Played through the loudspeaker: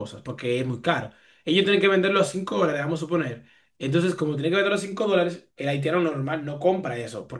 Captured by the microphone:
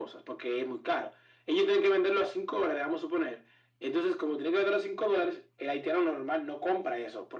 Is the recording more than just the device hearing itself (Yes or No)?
No